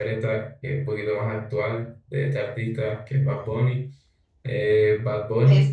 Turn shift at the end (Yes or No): No